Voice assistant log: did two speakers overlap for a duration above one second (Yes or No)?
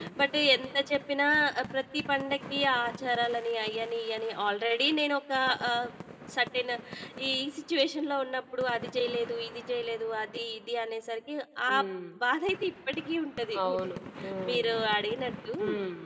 No